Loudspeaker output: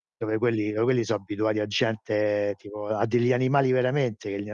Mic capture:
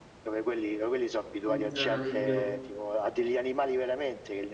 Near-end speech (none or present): present